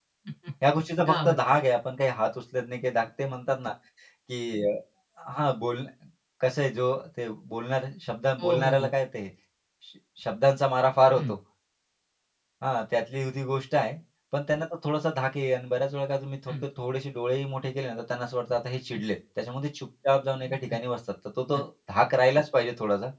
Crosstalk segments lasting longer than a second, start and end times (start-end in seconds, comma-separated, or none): none